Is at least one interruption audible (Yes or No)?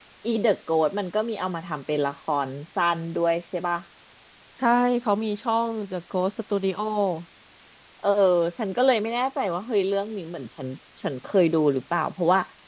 No